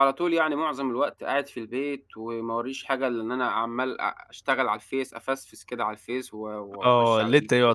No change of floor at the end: No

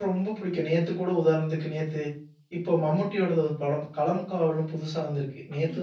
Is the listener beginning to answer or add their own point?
No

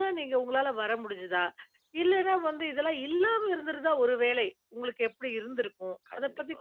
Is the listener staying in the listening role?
Yes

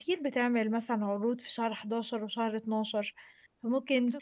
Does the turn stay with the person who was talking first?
Yes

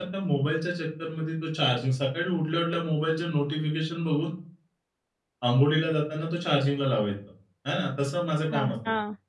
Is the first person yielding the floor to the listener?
No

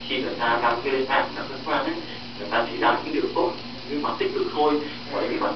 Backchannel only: Yes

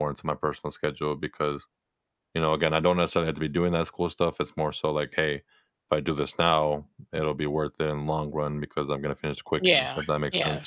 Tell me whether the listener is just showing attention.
No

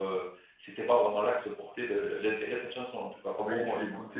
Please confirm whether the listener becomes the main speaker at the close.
Yes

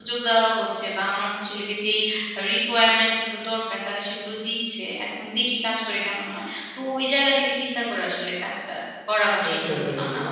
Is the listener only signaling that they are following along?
No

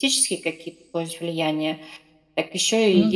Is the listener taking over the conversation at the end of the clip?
No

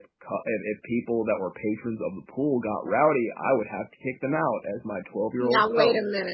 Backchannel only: No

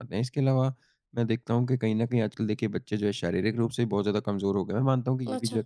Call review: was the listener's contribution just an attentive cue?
Yes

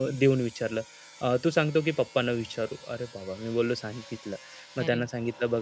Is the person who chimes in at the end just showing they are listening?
Yes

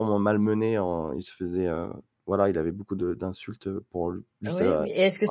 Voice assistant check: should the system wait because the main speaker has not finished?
No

